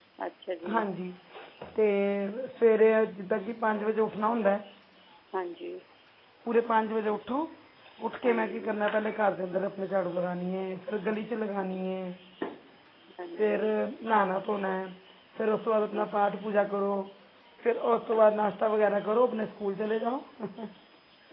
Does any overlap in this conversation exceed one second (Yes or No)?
No